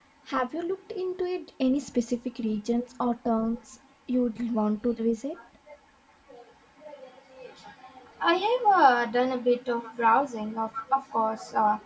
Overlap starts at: none

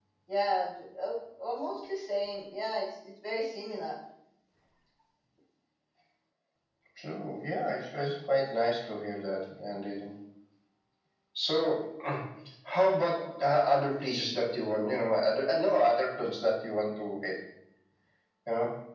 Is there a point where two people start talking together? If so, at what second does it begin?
none

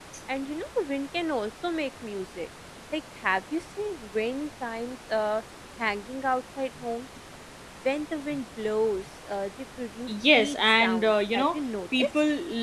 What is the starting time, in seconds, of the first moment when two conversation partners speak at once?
10.1 s

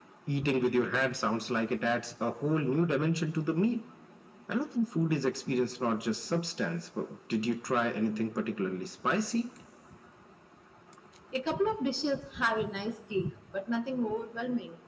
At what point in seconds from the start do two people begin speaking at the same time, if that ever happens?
none

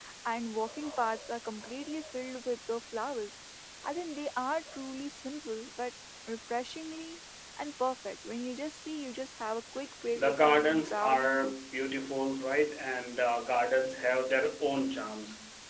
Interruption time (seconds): 10.2 s

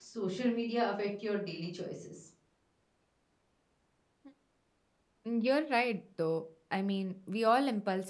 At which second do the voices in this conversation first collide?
none

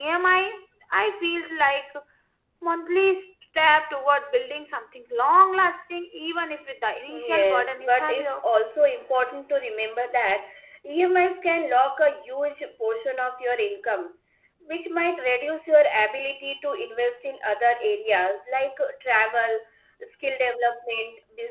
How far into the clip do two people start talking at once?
7.1 s

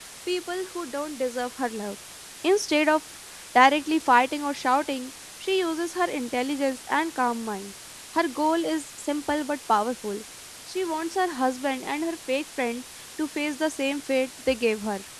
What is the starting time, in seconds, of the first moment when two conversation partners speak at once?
none

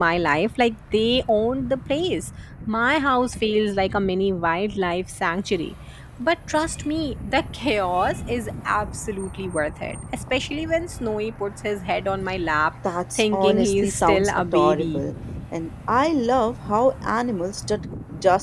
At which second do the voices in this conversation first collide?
13.2 s

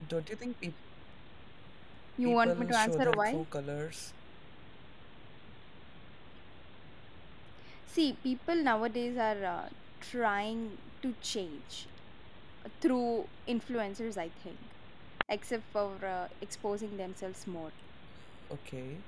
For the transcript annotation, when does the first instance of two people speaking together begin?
2.2 s

